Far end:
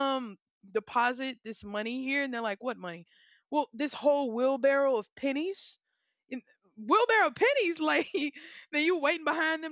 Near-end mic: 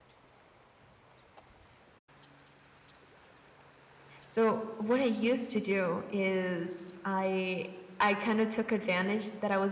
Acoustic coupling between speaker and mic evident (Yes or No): No